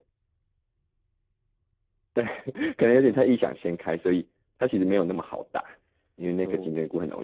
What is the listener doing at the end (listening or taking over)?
listening